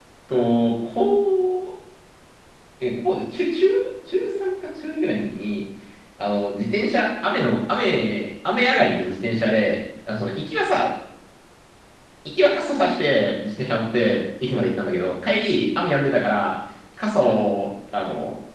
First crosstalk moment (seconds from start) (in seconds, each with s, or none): none